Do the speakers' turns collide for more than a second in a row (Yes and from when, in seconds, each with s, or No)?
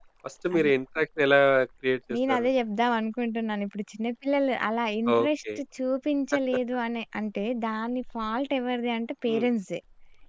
No